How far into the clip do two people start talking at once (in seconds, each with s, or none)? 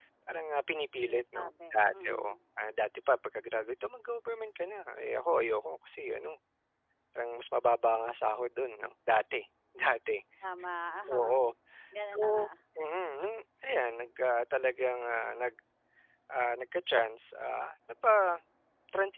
1.1 s